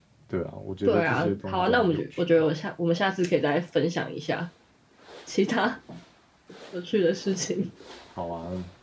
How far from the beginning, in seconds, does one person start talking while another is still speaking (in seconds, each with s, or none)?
0.8 s